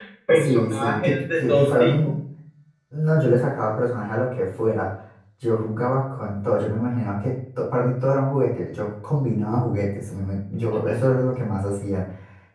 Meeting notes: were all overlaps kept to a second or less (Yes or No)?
No